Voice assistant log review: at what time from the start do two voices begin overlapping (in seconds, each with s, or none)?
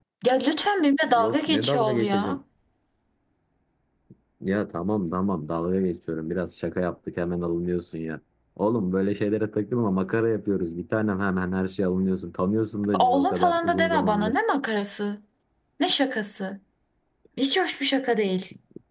1.1 s